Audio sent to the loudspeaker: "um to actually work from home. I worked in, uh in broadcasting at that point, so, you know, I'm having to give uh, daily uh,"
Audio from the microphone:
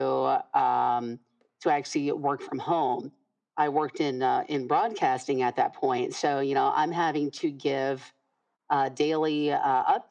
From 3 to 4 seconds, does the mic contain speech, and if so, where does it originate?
echo only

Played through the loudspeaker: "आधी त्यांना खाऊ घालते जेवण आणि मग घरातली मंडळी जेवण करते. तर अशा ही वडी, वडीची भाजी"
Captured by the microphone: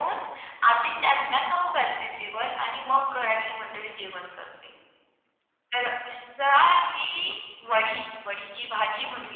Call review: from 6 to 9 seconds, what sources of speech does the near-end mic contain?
echo only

